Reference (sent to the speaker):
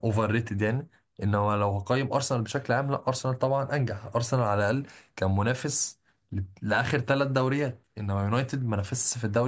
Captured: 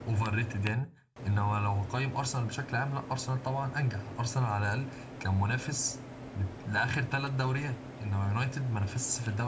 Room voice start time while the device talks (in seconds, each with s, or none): none